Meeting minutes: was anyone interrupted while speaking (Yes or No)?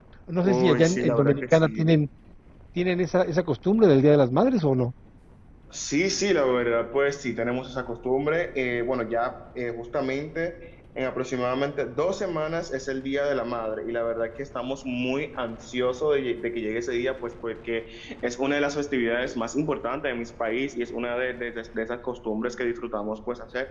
Yes